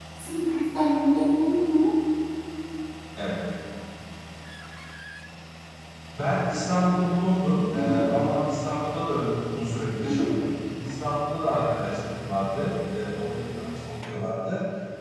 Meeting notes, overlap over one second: none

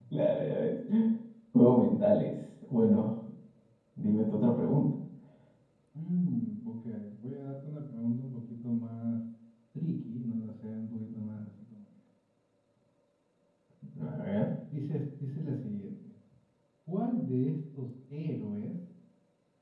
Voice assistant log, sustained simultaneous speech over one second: none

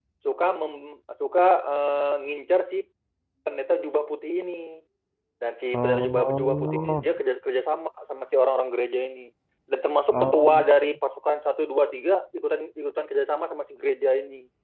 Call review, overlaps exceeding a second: present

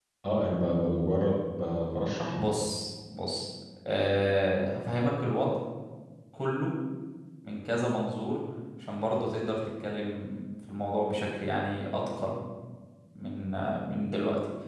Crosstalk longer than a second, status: none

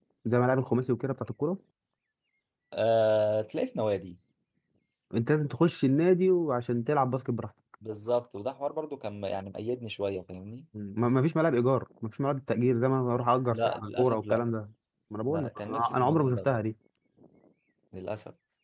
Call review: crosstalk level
present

